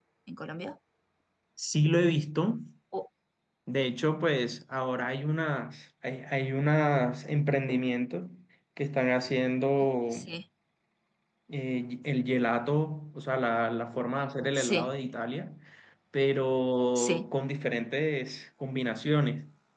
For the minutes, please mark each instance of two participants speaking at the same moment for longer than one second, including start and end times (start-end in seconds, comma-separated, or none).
none